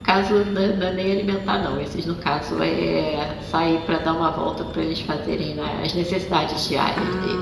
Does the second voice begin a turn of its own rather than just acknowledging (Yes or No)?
Yes